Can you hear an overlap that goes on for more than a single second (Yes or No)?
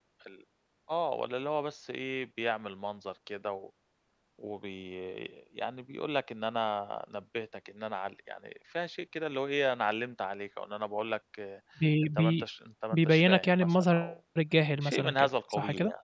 Yes